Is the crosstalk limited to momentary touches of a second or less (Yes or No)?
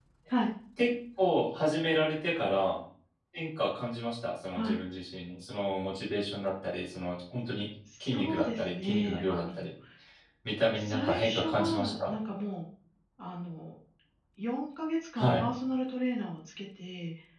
No